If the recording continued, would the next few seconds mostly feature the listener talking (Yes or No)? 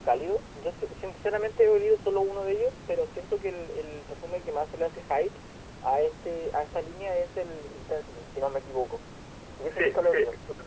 Yes